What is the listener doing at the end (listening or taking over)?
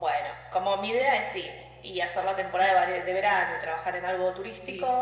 listening